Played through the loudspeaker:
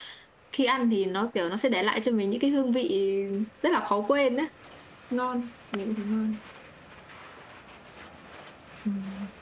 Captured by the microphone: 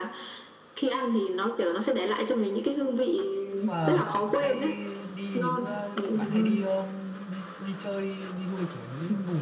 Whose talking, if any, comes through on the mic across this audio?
both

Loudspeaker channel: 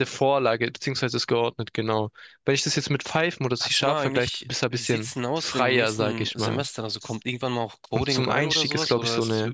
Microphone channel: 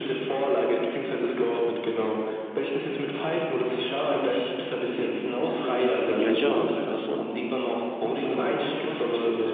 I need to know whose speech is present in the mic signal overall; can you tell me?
both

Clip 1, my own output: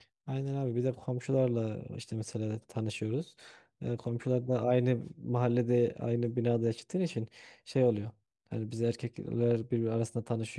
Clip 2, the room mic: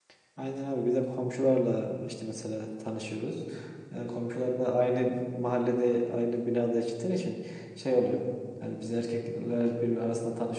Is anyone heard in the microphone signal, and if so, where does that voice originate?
echo only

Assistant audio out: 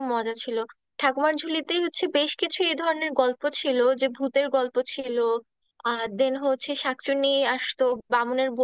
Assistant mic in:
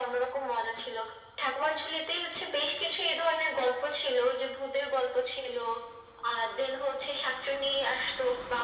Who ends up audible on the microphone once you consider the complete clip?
echo only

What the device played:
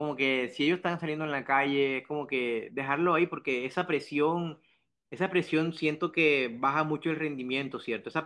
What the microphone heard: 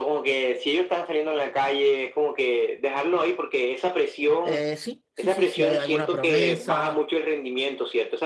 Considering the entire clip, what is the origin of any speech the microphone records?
both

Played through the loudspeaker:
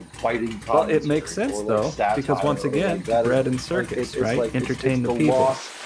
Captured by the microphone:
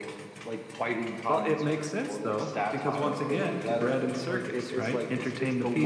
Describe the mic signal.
echo only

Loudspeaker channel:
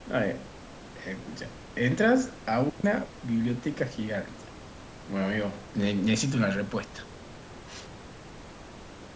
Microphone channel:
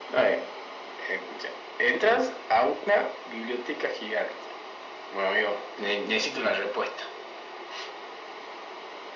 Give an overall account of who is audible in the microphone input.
echo only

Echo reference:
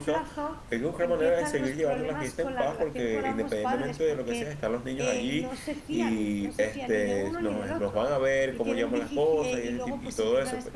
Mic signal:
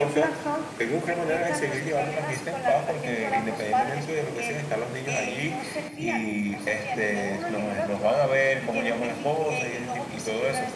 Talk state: echo only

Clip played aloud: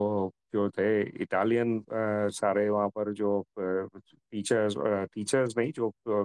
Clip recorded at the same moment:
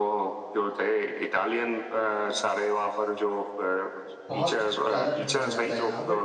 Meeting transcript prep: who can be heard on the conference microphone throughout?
both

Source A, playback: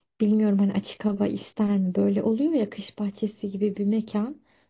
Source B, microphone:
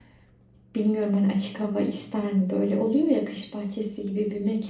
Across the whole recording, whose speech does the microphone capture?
echo only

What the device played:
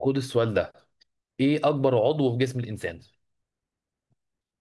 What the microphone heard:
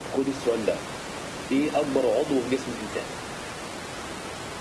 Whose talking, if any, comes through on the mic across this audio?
echo only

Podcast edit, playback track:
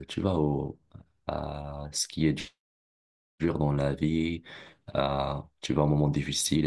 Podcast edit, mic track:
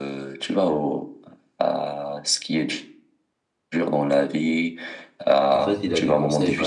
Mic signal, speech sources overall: both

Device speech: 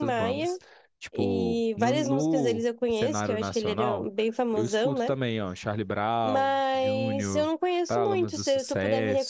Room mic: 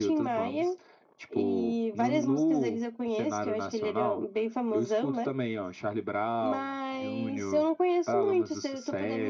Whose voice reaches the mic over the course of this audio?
echo only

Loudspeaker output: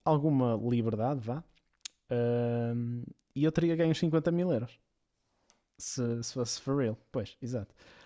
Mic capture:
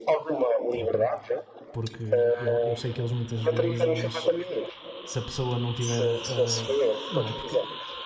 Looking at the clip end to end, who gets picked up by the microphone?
both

